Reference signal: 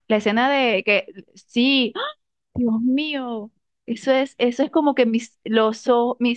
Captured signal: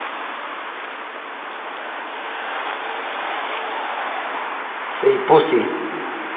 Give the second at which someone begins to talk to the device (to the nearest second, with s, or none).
5 s